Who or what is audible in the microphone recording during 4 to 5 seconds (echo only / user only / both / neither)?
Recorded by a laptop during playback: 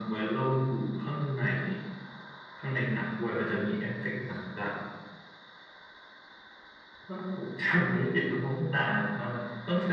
echo only